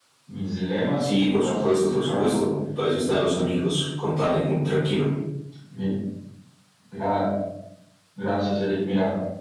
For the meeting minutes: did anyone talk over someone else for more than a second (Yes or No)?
Yes